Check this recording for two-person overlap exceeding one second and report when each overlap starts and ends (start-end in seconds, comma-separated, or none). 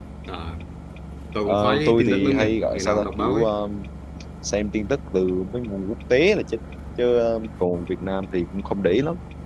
1.5-3.5